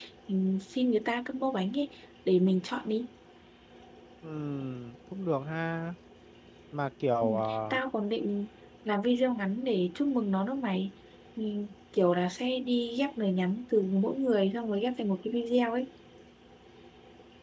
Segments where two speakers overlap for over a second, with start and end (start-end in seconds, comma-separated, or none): none